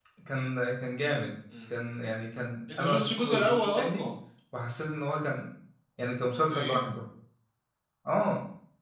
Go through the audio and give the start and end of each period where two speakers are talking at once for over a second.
2.7-4.0

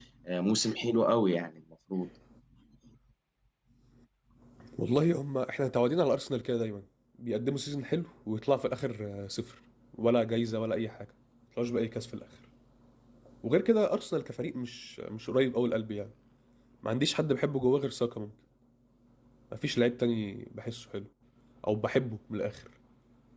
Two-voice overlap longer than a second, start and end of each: none

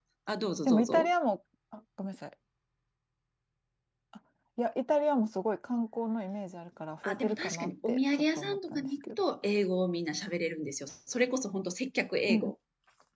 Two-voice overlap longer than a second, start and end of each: 7.0-9.2

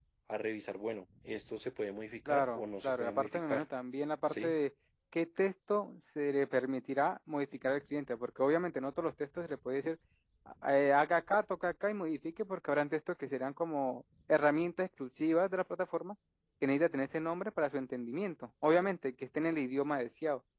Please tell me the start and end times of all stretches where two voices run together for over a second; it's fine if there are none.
2.3-3.6

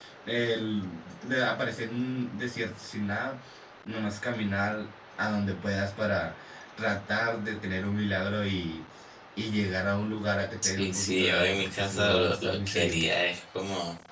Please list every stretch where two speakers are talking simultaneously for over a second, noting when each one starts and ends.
10.8-13.0

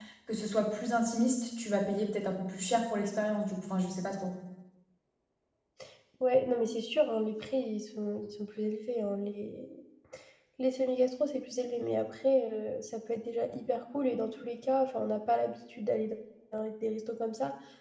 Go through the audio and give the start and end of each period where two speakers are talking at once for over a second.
none

